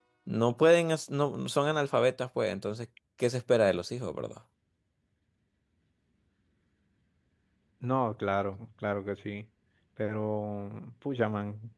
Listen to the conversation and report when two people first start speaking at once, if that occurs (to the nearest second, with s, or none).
none